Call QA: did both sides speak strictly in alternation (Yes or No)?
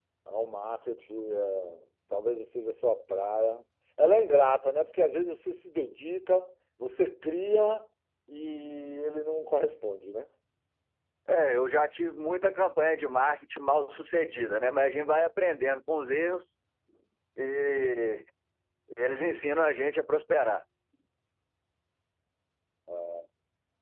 Yes